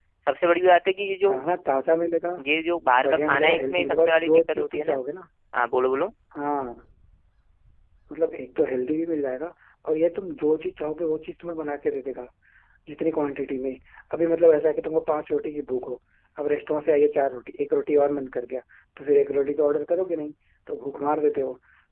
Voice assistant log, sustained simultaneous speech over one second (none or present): present